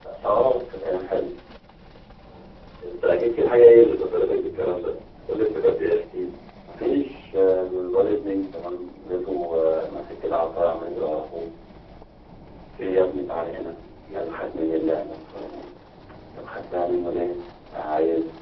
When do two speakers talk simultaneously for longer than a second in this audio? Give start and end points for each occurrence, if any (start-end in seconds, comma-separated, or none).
none